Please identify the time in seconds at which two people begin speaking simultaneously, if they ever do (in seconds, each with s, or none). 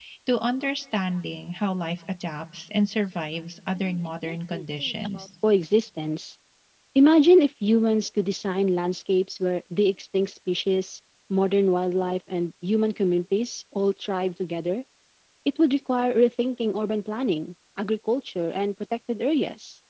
3.8 s